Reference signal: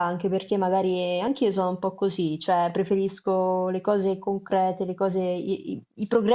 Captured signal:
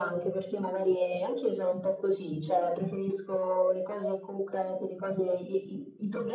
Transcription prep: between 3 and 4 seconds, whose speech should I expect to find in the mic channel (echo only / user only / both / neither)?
echo only